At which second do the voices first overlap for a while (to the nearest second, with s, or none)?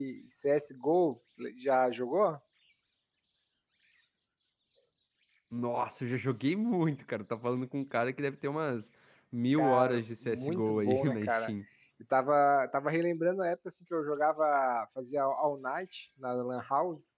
10 s